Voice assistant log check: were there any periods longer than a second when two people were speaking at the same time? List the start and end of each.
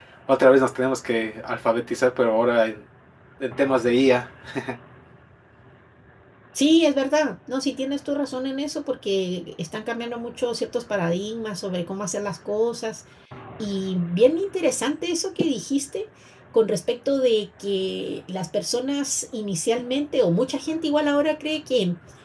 none

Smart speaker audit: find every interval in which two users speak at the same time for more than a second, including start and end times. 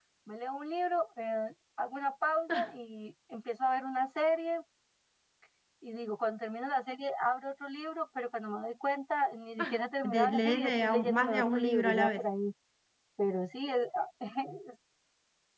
10.0-12.2

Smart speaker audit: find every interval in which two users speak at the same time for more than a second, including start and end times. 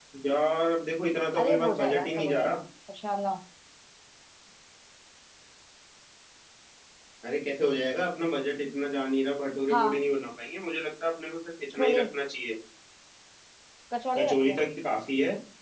1.4-2.6

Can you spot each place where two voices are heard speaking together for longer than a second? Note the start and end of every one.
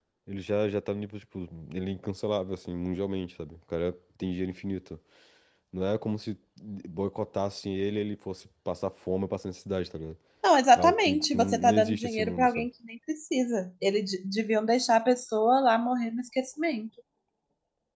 10.8-12.7

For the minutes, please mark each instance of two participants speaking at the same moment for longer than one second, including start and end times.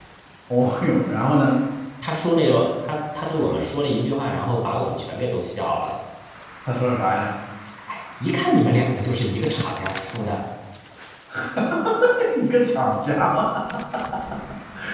none

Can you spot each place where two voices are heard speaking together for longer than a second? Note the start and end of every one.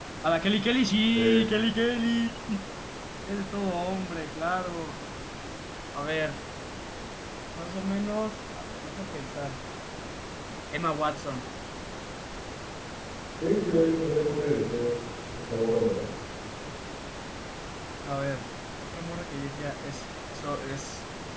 none

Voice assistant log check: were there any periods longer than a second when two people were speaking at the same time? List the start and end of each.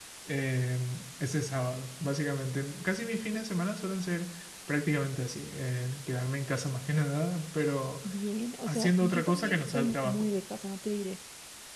8.7-10.3

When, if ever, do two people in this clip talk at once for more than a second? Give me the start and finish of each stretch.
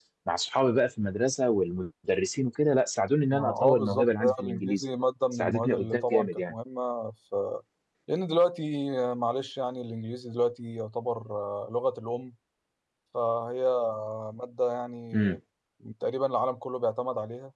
3.3-4.8, 5.3-6.5

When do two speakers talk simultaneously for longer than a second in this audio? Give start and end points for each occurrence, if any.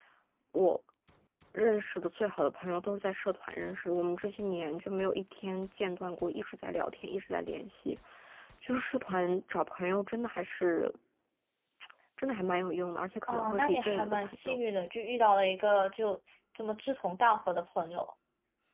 13.3-14.6

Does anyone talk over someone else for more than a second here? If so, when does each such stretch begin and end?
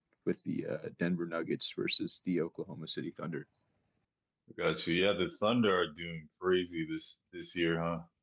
none

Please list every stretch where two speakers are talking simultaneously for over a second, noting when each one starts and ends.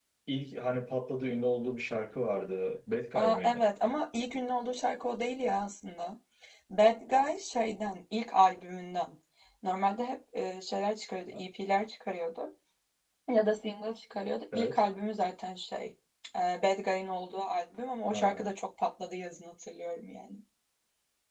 none

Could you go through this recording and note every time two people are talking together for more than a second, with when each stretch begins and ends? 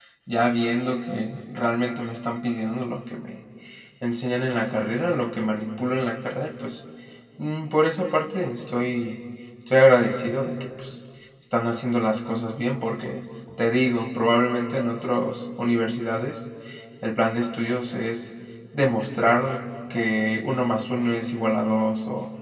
none

